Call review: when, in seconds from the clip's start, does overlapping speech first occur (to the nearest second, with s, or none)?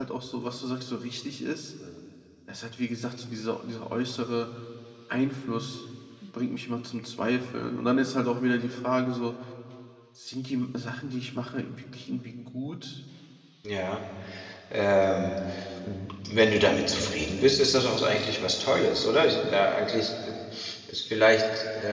none